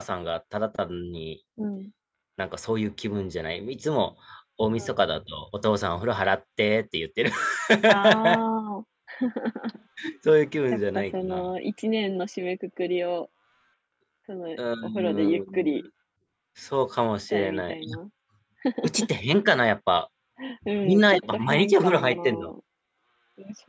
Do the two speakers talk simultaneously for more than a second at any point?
Yes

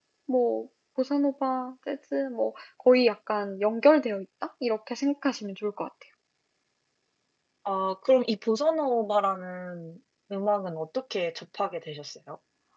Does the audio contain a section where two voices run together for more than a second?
No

